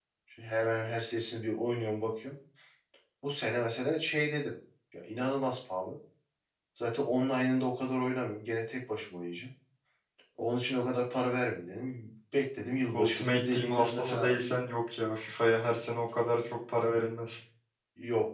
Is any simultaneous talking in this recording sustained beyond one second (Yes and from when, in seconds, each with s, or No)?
Yes, from 12.9 s